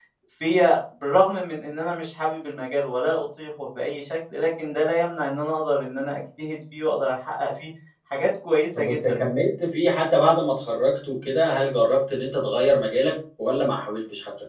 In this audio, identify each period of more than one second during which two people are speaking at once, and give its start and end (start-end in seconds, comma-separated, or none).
none